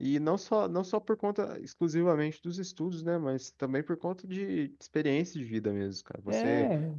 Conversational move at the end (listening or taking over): listening